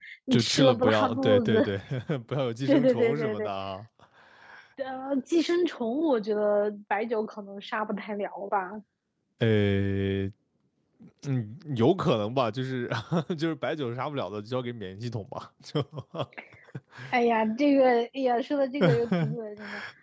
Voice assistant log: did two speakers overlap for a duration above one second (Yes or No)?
Yes